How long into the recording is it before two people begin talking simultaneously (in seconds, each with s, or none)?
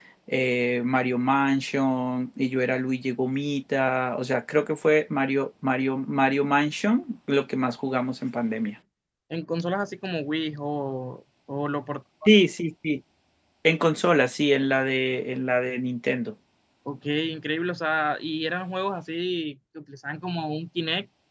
none